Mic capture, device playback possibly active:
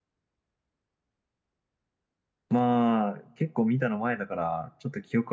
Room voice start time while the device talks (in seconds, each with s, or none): 2.5 s